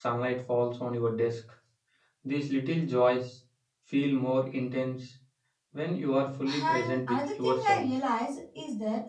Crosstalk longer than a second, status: present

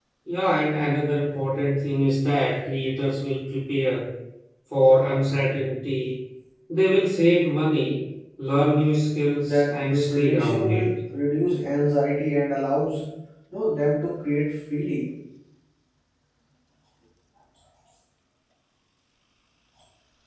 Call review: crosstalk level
present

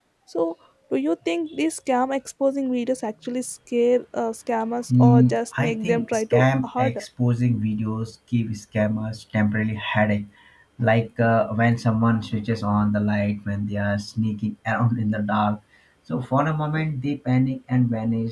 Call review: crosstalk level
present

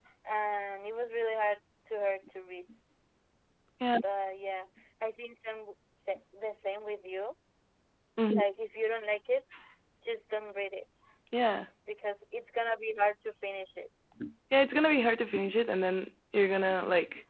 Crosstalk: none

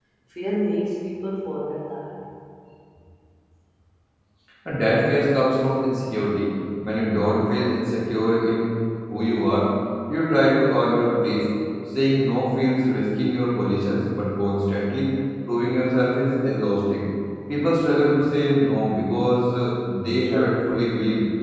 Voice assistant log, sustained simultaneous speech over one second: none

